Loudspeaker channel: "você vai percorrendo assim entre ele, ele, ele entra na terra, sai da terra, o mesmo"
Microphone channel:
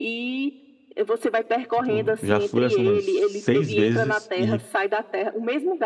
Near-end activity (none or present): present